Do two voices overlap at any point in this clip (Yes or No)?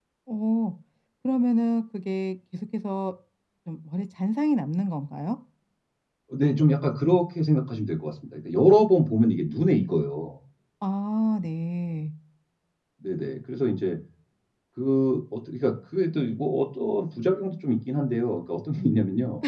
No